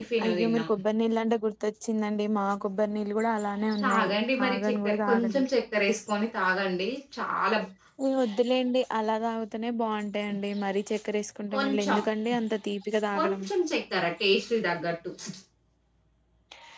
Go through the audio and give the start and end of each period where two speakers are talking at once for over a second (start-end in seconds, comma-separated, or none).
3.8-5.4